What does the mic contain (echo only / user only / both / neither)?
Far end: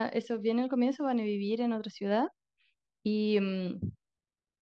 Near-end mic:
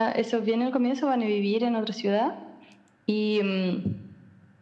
echo only